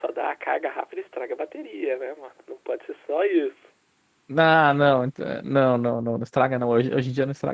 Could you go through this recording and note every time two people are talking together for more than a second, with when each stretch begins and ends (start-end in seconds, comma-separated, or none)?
none